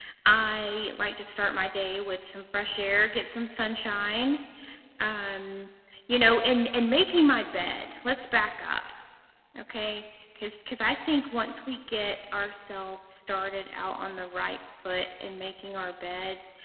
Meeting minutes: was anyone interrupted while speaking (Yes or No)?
No